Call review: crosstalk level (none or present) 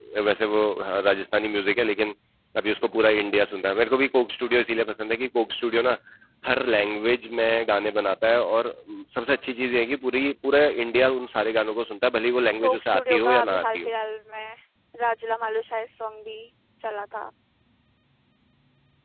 present